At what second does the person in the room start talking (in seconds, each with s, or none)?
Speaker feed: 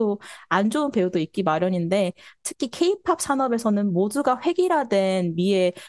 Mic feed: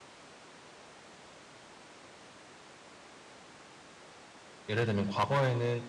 4.7 s